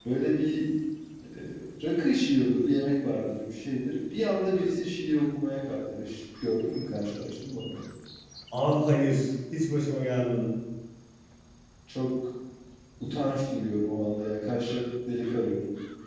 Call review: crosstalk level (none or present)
none